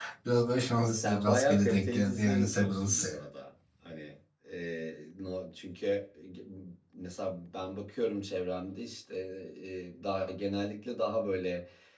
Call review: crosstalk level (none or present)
present